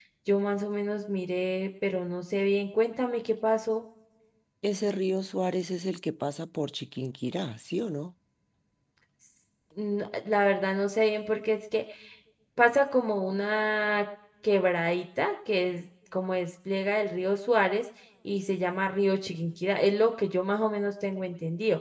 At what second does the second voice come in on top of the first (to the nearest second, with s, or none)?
none